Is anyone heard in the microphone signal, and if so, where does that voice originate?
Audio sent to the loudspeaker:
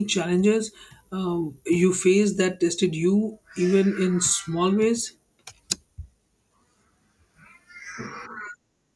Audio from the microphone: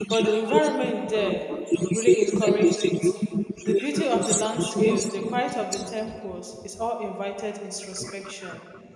both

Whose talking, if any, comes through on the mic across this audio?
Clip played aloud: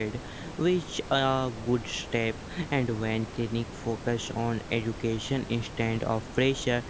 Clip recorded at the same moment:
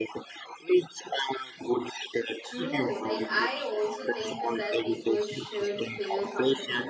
both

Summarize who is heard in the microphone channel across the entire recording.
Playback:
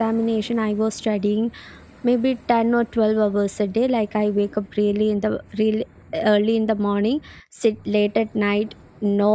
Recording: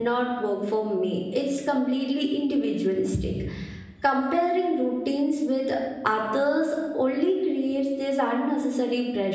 user only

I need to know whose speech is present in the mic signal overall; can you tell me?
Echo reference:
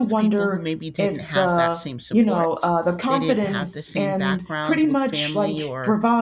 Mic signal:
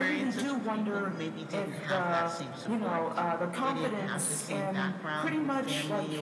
echo only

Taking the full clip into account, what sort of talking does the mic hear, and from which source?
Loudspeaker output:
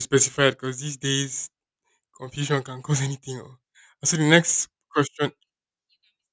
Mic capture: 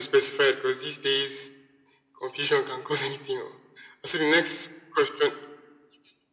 echo only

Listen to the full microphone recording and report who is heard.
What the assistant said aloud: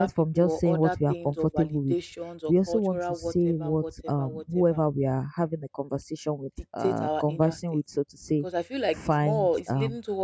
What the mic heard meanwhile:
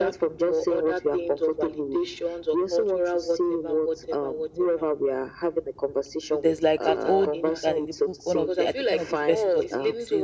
both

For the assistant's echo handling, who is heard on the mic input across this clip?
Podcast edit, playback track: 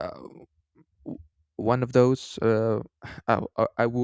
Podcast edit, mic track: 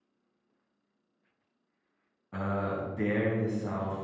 user only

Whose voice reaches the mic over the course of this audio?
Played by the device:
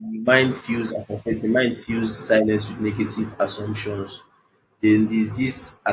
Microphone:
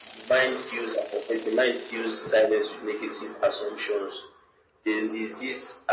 echo only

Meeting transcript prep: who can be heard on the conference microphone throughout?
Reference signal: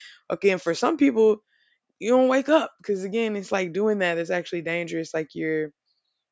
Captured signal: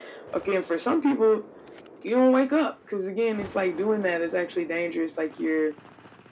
echo only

